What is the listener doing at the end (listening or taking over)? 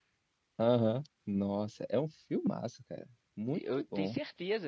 taking over